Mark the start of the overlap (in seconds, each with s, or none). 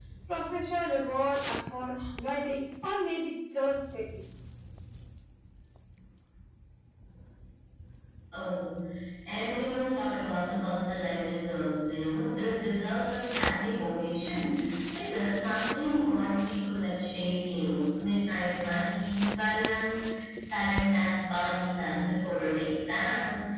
none